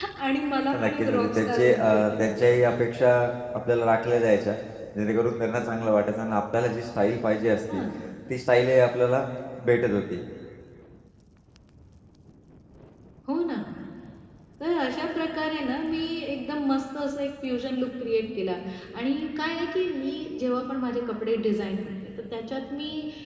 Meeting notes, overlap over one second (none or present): present